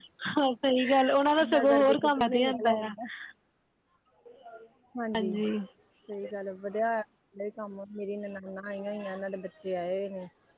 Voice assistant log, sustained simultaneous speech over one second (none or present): present